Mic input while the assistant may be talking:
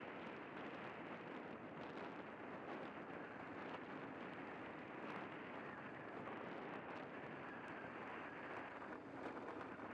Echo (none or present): none